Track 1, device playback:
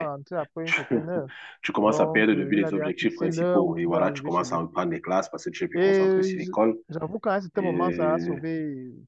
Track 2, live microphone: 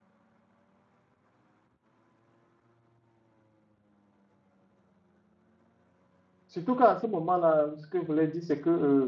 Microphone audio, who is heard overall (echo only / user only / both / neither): user only